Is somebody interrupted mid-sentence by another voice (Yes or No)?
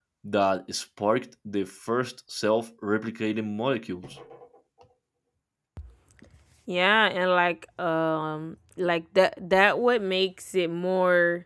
No